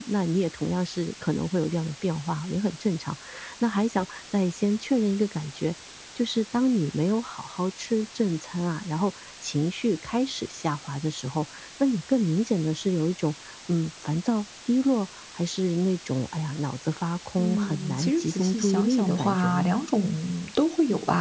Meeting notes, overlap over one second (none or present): present